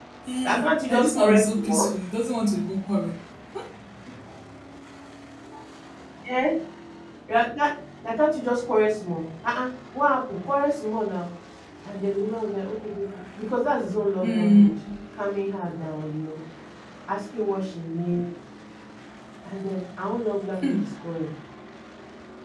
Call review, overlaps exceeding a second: present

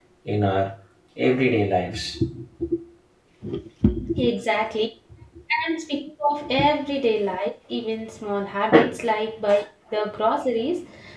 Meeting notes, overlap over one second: none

